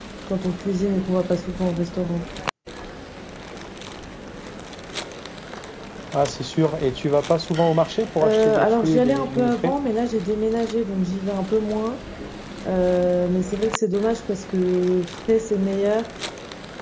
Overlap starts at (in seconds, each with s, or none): 8.2 s